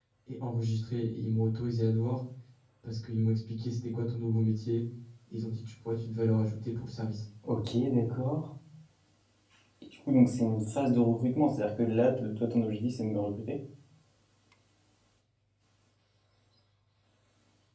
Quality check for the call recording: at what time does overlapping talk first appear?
none

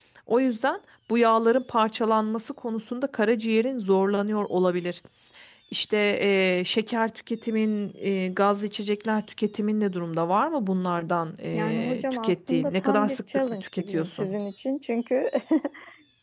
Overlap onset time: 11.5 s

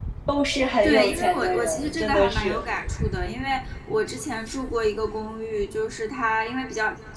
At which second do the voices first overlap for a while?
0.8 s

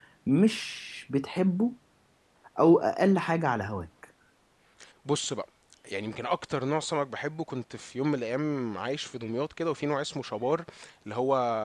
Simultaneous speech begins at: none

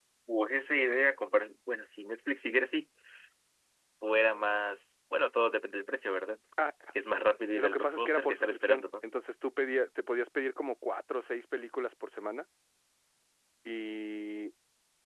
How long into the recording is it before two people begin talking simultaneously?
7.5 s

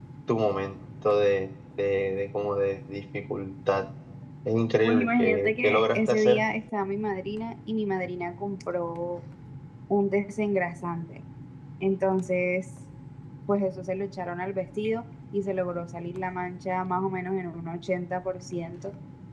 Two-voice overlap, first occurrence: 4.8 s

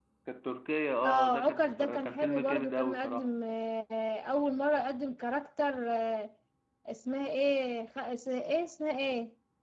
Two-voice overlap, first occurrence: 1.0 s

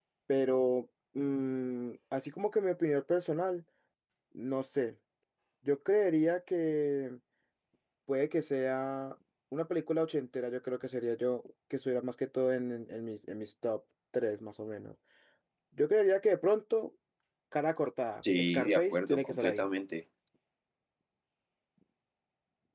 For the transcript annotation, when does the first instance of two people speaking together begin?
18.4 s

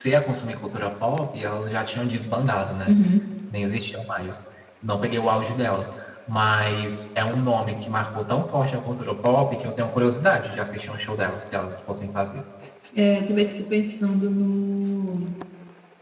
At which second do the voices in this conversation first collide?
none

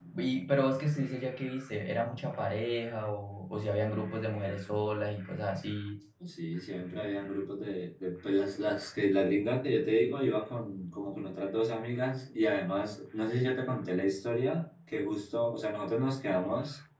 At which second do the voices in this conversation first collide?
none

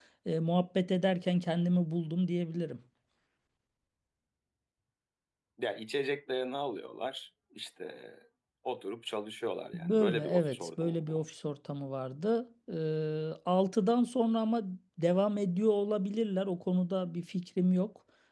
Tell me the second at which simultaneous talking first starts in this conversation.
9.7 s

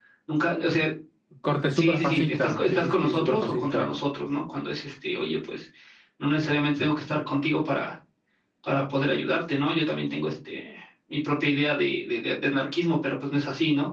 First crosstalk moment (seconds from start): 1.8 s

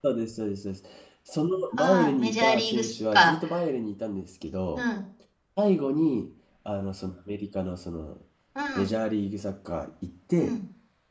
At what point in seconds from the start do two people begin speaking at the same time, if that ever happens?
1.8 s

